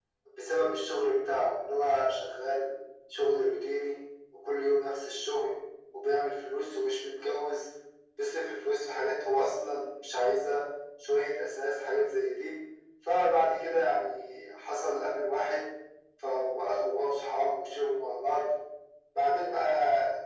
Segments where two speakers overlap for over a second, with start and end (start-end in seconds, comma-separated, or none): none